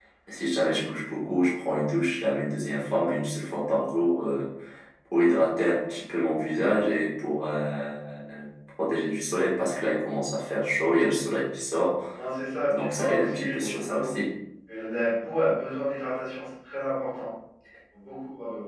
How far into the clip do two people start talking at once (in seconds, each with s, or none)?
12.8 s